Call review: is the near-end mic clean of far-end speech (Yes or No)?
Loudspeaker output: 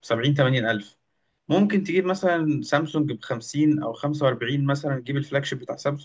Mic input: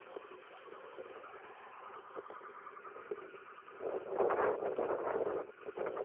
Yes